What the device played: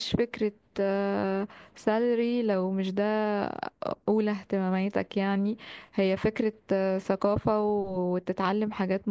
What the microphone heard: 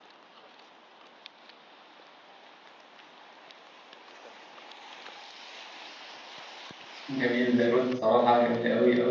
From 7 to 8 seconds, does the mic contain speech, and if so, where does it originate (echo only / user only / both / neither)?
user only